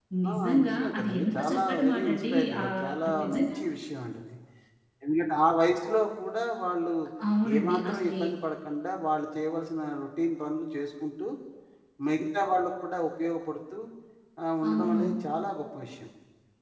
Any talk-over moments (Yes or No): Yes